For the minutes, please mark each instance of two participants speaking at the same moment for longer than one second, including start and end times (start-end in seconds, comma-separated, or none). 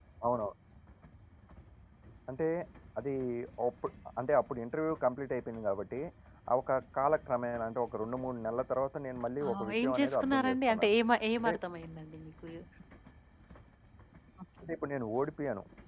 9.4-10.9